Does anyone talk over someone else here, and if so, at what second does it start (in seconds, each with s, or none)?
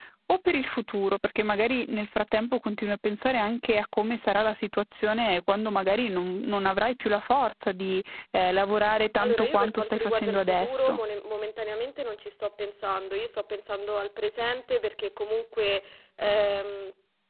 9.2 s